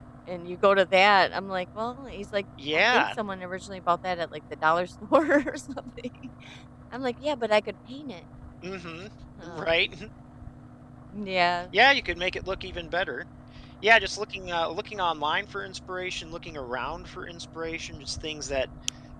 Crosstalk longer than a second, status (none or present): none